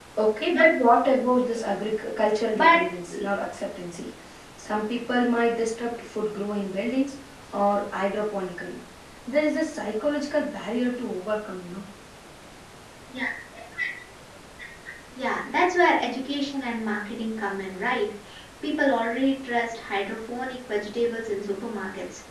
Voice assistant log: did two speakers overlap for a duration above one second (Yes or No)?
No